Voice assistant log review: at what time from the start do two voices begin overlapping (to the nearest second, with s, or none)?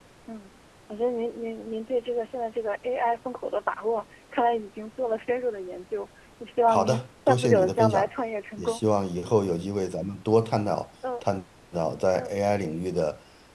7 s